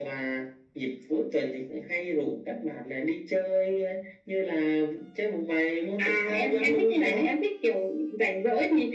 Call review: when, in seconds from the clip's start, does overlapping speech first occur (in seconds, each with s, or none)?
6.0 s